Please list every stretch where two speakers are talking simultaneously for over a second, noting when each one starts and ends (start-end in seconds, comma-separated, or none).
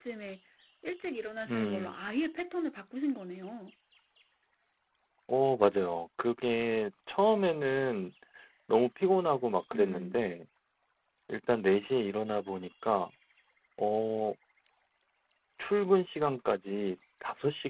none